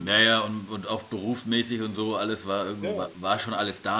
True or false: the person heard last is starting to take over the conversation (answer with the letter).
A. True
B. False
B